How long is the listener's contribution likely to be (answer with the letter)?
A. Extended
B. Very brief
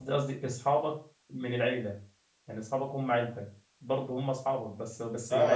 A